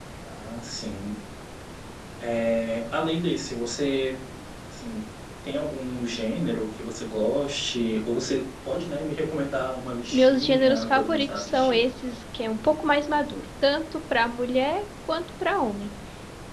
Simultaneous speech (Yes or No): Yes